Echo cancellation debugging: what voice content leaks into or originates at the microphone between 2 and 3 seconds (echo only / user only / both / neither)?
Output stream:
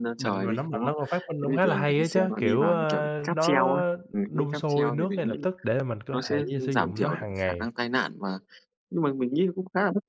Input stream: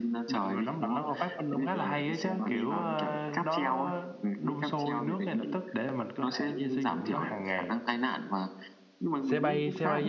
echo only